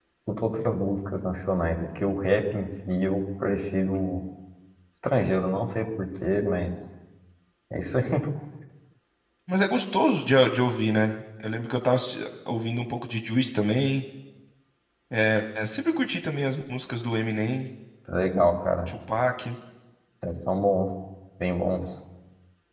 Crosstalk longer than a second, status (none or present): none